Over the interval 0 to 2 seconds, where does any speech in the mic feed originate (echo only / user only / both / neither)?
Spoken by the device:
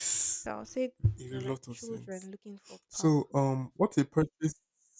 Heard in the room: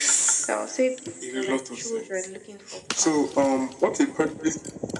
echo only